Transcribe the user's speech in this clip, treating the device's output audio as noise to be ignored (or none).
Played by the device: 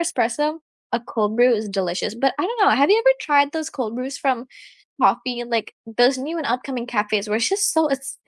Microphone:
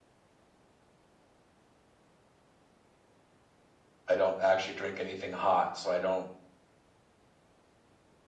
I don't actually drink anything hot, so I don't.